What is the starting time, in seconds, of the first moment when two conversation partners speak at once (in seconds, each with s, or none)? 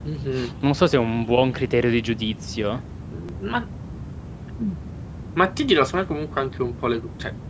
none